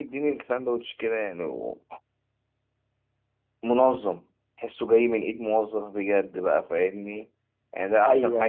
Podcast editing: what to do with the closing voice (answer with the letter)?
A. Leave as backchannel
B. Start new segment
A